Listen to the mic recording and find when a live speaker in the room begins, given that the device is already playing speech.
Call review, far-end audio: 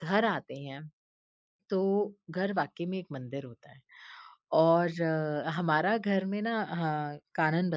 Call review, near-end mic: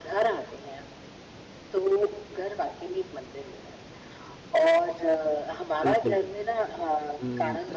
5.8 s

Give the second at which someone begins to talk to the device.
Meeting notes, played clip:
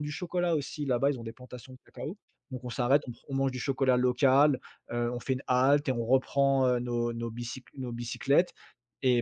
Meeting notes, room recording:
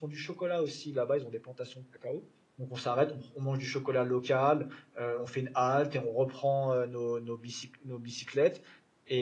none

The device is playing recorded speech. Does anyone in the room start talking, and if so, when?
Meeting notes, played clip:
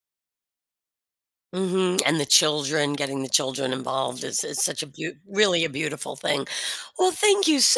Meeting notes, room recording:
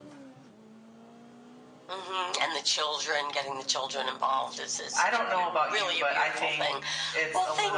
5.0 s

